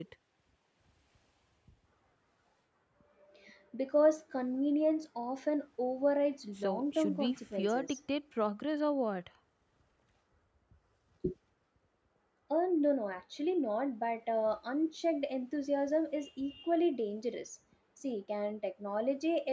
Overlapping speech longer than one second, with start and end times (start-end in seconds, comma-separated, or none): 6.6-8.0